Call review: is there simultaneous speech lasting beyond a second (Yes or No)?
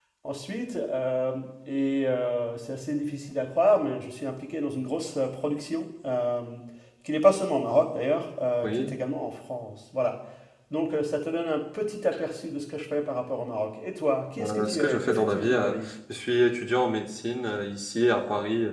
Yes